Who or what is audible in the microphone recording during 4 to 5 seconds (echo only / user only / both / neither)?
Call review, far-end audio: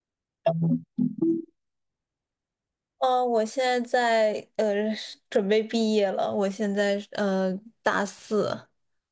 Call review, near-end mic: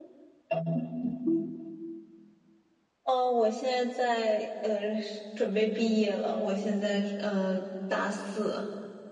echo only